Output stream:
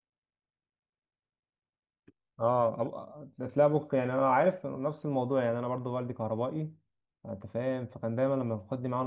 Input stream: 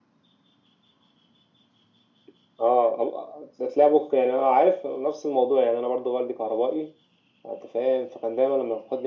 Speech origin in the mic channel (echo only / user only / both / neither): echo only